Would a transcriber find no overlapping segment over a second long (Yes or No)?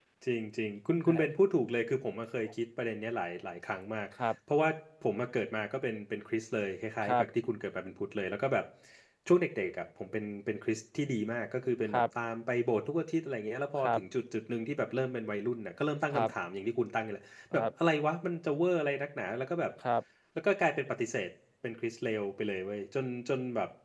Yes